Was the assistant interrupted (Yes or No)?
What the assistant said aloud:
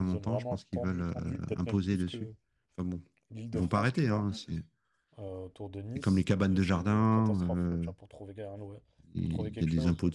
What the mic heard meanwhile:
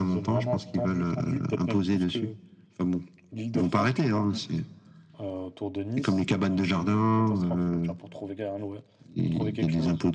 No